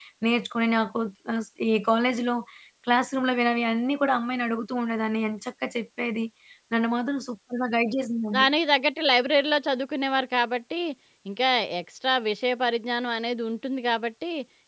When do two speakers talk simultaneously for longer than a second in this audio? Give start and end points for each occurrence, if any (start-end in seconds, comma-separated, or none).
none